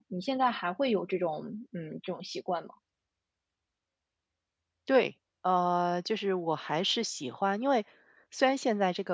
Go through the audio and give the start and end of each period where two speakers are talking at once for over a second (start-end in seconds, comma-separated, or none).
none